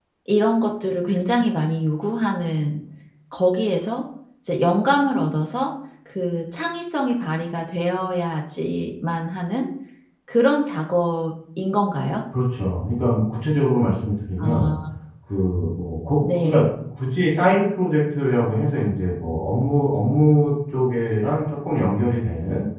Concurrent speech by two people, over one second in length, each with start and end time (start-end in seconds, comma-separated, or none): none